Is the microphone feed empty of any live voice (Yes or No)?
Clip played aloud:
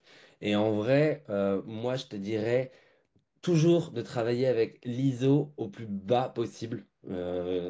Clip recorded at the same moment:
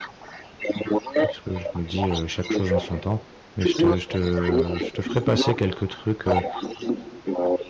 No